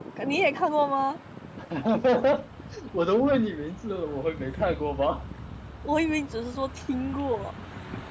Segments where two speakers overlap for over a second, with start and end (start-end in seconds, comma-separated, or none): none